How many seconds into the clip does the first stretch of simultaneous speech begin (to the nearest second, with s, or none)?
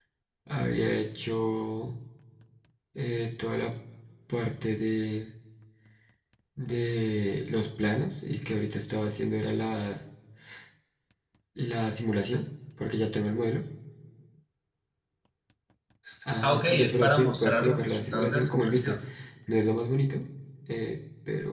16 s